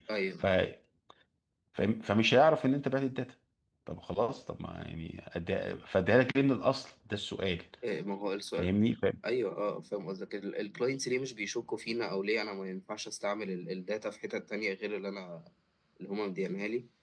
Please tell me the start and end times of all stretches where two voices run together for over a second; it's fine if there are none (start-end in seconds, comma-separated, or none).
none